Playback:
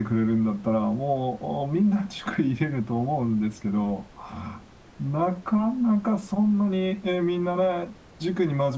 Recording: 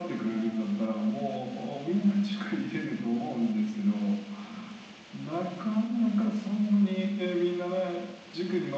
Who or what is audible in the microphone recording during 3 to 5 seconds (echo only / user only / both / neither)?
echo only